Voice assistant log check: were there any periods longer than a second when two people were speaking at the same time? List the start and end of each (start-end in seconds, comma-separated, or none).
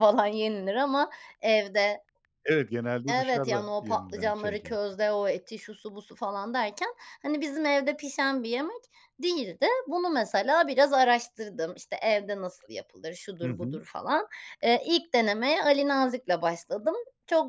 3.1-4.8